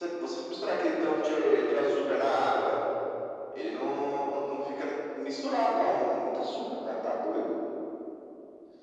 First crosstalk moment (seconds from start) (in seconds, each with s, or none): none